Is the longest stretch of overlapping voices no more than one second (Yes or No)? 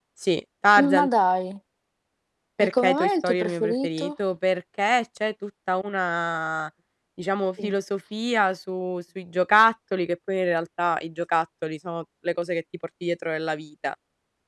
No